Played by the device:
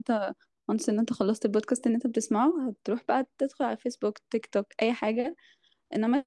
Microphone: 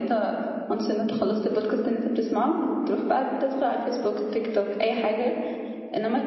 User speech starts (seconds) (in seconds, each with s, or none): none